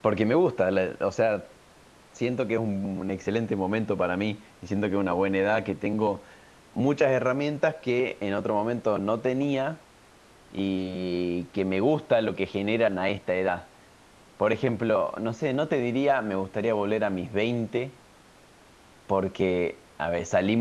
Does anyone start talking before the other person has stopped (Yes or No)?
No